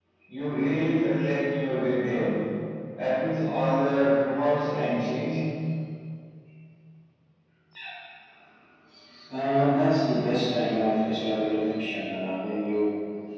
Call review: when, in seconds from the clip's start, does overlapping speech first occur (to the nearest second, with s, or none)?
none